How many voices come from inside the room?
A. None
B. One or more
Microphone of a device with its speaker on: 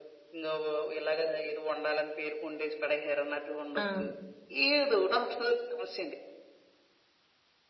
B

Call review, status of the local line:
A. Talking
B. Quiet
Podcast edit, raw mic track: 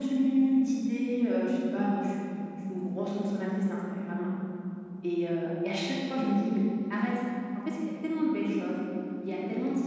A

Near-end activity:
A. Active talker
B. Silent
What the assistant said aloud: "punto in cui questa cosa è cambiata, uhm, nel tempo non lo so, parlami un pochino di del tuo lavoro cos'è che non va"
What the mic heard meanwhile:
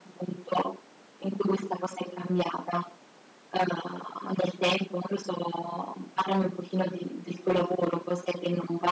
B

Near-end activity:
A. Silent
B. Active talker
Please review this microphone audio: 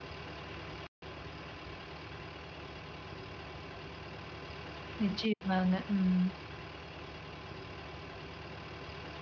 B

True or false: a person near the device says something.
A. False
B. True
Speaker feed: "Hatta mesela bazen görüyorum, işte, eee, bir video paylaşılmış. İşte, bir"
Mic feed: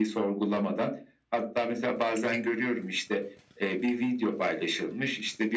A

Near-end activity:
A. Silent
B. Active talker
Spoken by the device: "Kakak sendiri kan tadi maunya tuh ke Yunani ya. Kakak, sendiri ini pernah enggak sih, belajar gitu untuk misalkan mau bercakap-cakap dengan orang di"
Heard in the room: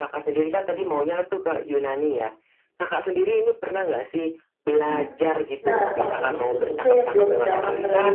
B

